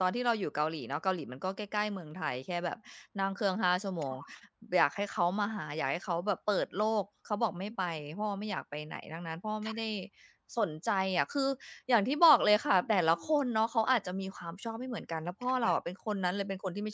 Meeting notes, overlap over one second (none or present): none